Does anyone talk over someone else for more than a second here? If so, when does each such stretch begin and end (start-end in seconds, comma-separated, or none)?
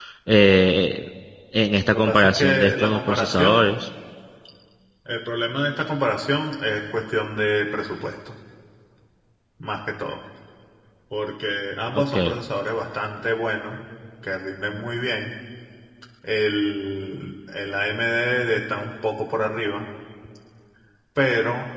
1.9-3.8